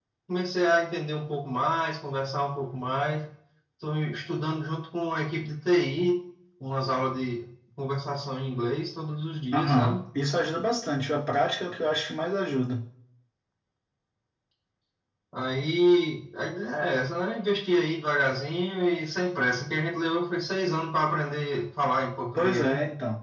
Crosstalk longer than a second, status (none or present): none